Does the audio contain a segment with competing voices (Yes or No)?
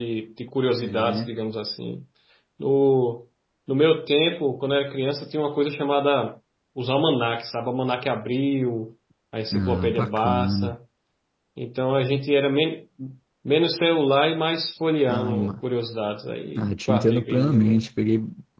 Yes